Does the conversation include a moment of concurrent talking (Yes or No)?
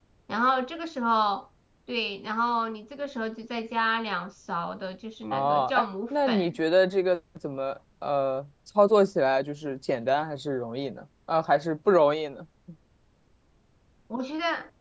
Yes